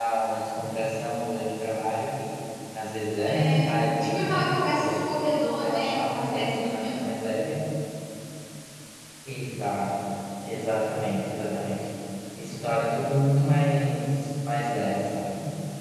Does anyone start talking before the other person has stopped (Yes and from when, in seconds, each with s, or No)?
Yes, from 3.3 s